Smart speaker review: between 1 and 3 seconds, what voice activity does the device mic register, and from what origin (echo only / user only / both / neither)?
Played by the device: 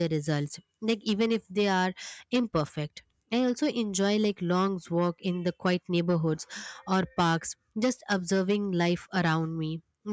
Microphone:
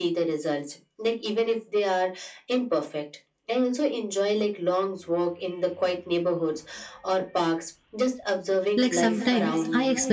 echo only